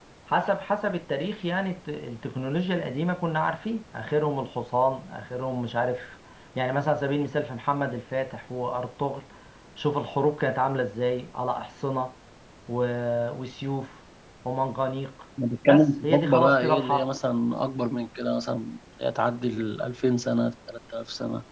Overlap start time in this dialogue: 15.7 s

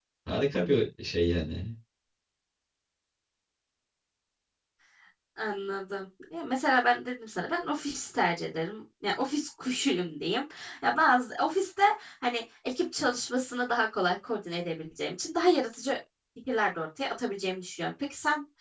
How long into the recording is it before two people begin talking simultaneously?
none

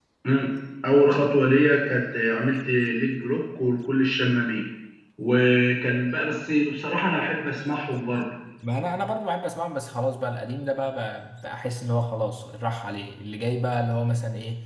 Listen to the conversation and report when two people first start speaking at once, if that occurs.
none

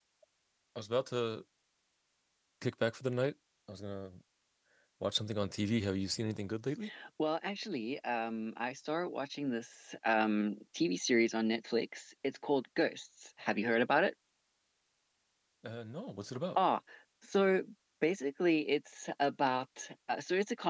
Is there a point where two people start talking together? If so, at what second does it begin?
none

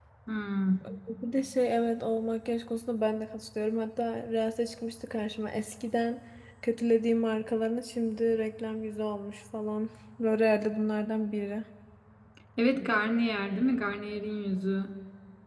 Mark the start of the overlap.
none

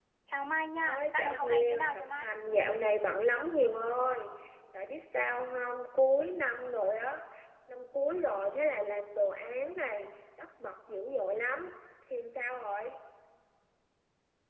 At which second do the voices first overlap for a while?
0.8 s

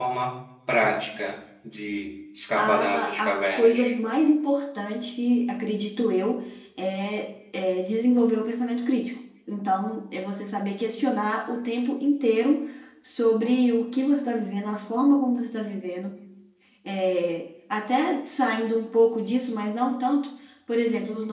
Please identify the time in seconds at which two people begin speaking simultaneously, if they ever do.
2.6 s

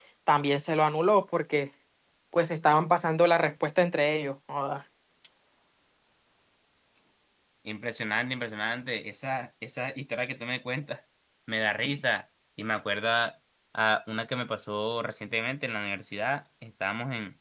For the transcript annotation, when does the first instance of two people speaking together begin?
none

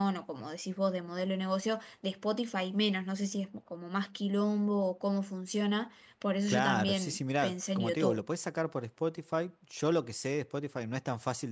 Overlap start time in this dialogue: 6.5 s

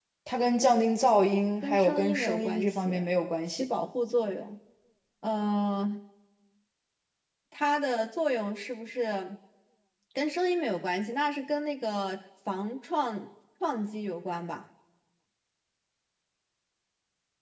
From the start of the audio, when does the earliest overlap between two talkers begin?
1.6 s

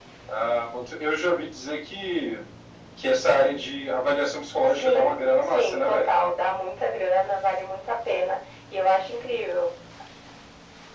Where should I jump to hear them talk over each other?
4.7 s

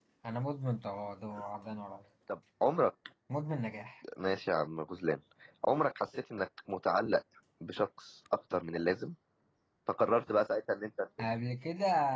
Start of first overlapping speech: none

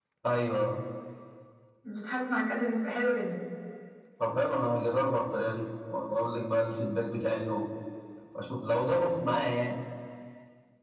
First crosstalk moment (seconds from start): none

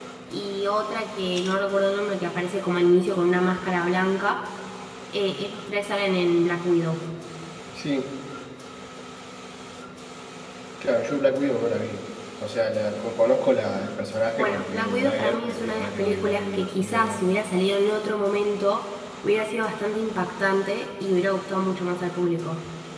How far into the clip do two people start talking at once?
14.4 s

